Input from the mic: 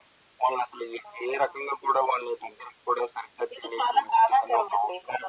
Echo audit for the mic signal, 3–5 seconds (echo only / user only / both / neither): echo only